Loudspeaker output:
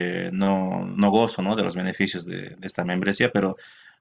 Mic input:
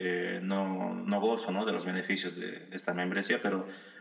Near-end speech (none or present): none